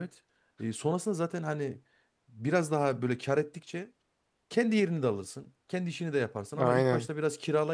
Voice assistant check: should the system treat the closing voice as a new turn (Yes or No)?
No